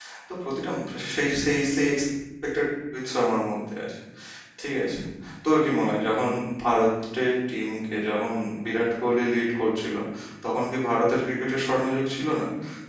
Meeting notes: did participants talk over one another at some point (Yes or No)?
No